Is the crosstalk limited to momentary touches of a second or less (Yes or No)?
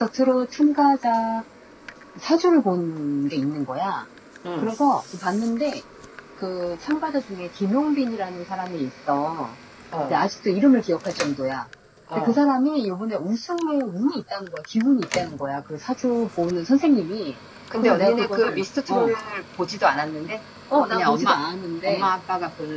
No